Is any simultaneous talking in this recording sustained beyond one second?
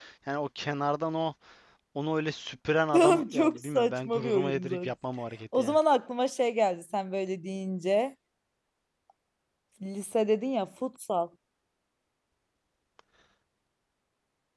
Yes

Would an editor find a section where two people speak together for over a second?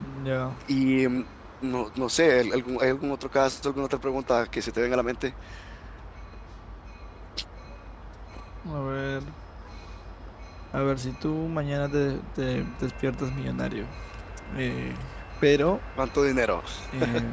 No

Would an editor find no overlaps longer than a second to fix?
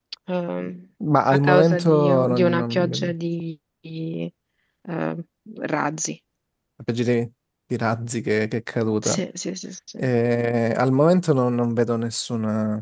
No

